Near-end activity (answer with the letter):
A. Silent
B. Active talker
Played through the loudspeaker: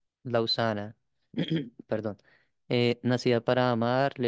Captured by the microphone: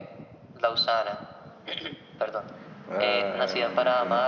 B